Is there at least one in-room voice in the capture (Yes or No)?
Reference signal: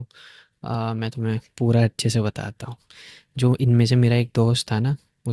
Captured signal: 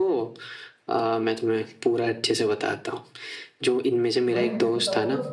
Yes